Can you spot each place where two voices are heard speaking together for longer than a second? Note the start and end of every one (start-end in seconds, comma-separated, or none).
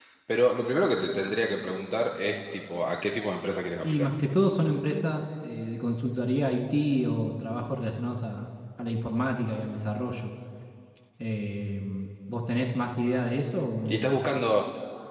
none